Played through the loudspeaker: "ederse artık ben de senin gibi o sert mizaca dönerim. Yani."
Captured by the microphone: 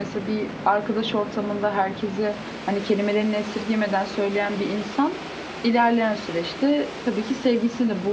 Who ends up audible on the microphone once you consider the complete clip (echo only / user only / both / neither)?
user only